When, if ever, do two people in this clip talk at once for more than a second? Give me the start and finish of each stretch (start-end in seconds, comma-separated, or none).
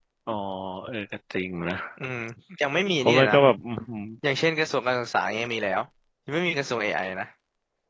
none